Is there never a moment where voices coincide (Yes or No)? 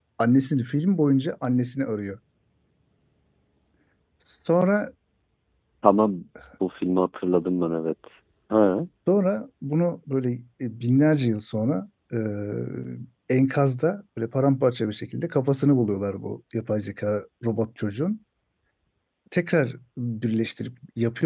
Yes